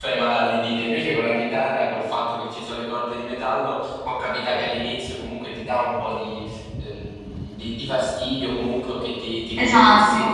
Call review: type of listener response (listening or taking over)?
listening